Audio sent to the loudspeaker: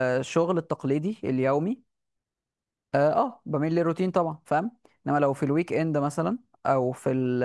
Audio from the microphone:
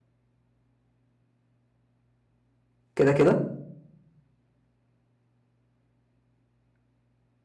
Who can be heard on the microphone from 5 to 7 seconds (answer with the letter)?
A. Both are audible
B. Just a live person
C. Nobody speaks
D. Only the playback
C